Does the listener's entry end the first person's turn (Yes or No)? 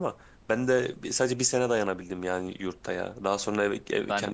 No